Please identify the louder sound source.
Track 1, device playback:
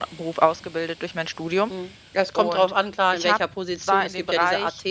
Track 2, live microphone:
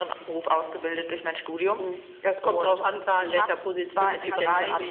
echo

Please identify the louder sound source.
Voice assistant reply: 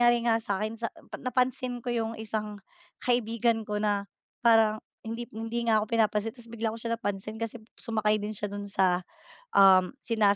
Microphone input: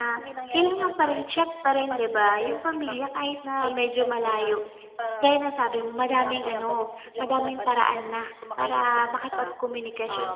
user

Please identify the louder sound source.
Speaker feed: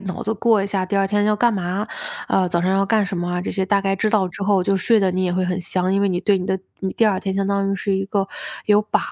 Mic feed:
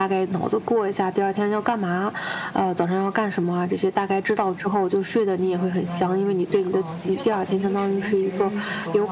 echo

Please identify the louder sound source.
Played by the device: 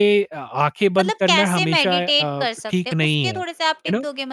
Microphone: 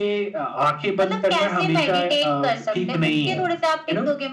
echo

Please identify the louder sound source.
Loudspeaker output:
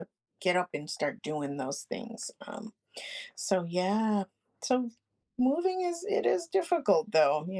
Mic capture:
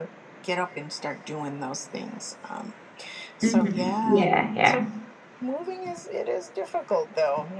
user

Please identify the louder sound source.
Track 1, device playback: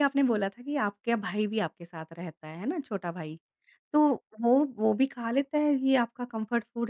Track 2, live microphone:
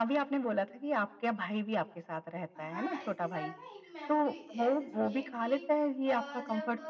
echo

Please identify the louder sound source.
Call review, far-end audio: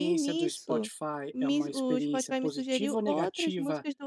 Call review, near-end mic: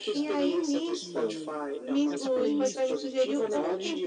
echo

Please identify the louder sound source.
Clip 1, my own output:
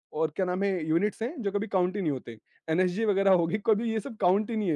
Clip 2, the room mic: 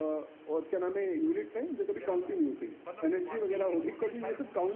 echo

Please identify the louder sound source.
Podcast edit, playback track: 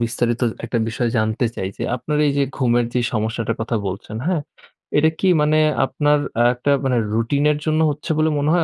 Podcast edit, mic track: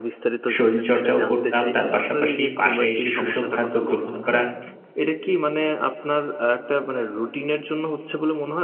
user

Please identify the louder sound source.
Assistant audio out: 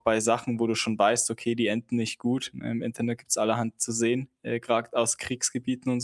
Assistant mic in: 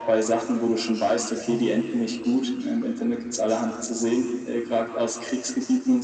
echo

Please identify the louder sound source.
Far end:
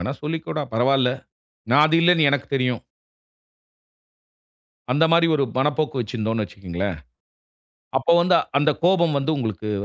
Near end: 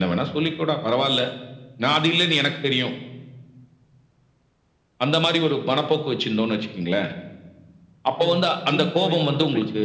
echo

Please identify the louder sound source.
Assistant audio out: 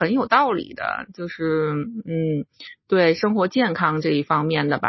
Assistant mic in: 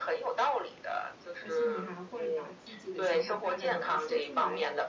echo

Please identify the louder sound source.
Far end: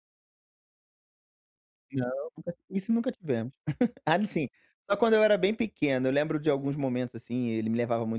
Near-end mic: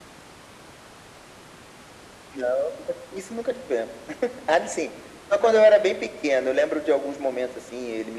echo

